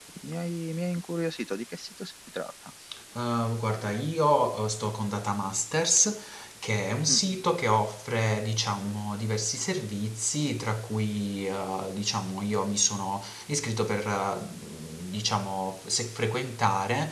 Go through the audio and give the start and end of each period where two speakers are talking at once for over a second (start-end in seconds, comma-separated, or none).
none